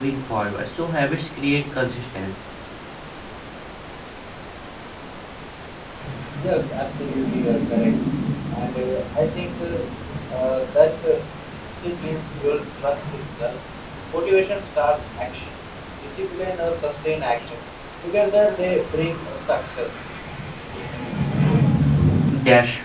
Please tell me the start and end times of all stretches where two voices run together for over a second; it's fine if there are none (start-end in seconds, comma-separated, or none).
none